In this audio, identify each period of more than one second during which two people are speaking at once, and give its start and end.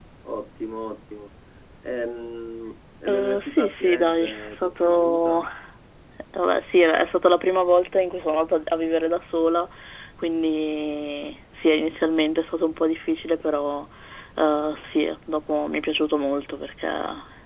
3.1-5.4

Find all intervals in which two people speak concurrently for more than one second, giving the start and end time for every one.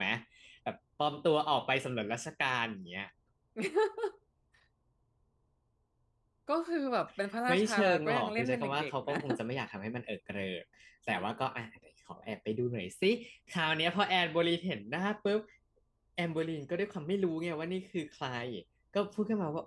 7.5-9.2

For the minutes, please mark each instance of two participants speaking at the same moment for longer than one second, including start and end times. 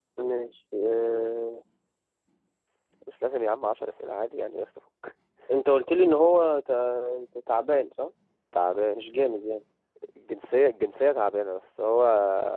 none

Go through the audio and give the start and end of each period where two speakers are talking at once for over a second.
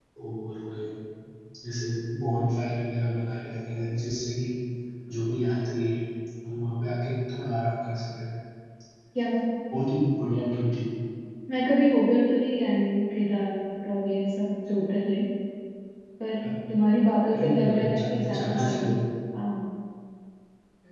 17.3-18.9

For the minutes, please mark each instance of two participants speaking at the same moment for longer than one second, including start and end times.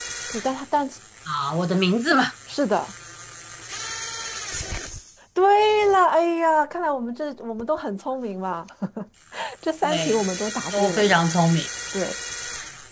none

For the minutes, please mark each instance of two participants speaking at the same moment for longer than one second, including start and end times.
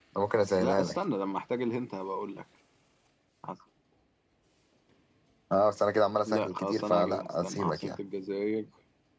6.2-8.0

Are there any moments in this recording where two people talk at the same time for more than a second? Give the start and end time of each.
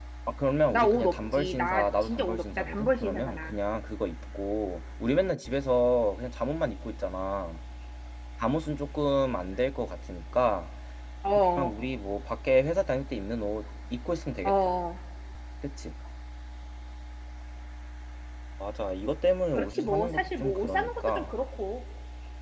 0.7-3.5, 19.5-21.3

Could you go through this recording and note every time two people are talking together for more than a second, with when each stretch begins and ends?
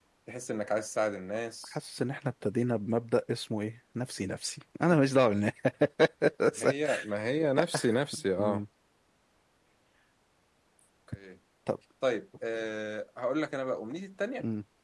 none

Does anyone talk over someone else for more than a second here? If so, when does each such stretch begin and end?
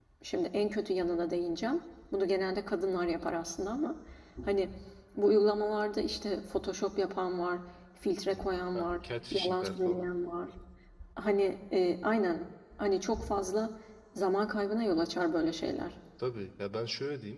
8.8-10.0

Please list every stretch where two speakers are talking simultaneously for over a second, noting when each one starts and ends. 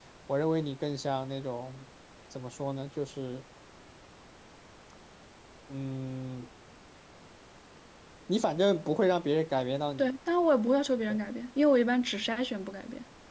none

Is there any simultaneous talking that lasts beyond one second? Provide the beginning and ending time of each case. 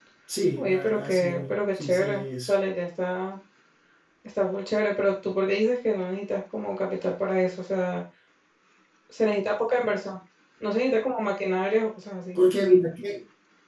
0.6-2.5

